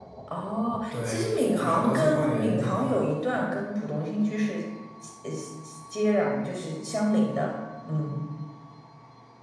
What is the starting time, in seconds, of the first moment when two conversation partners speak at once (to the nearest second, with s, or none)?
1 s